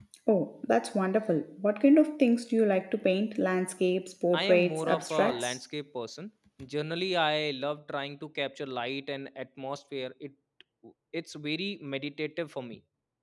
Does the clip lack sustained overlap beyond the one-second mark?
No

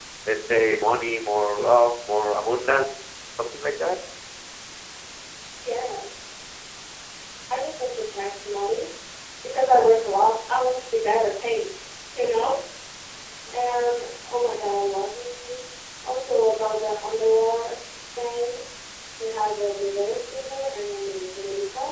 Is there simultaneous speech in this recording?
No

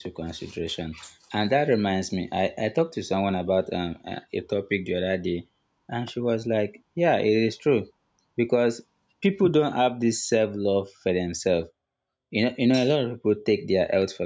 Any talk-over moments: No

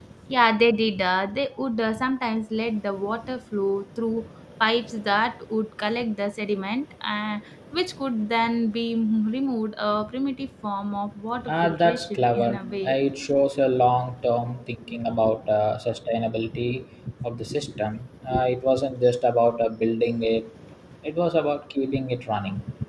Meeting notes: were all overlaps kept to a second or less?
No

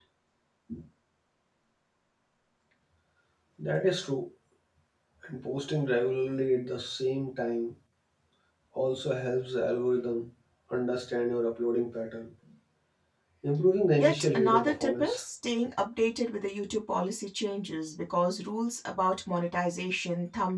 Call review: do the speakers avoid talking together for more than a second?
No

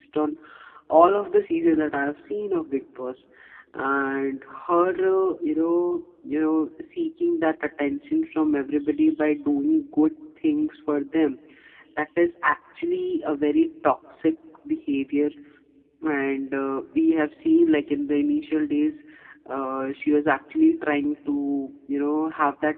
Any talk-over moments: No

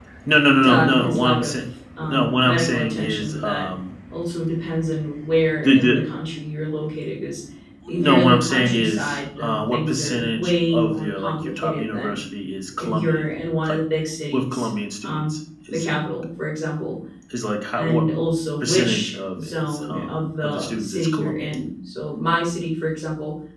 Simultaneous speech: Yes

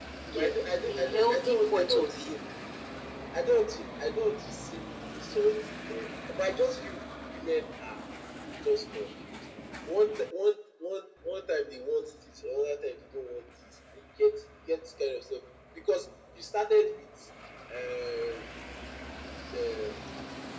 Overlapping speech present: Yes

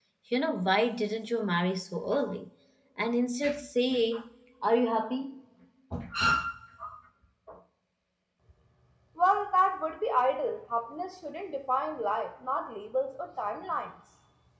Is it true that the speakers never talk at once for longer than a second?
Yes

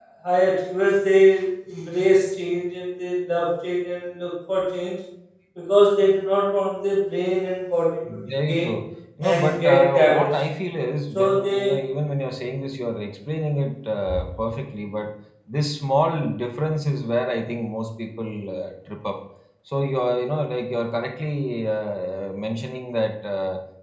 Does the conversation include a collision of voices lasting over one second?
Yes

